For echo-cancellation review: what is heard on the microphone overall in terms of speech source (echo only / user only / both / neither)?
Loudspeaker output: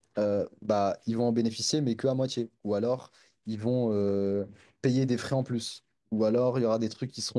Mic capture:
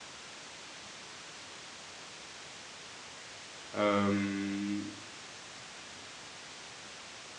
user only